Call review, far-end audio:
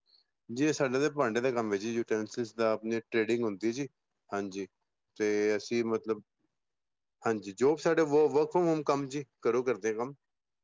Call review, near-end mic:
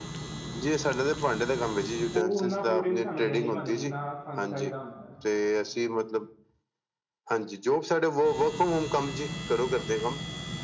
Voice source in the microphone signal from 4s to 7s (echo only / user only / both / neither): both